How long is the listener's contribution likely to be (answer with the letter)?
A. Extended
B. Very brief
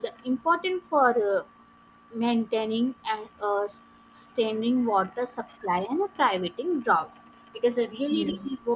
B